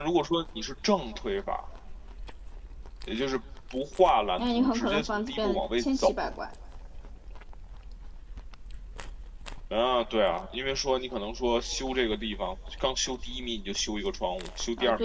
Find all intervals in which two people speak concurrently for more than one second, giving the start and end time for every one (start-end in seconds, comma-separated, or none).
4.4-6.3